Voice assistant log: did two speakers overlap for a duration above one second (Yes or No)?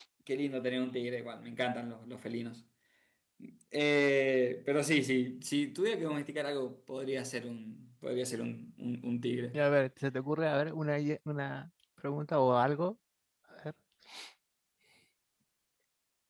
No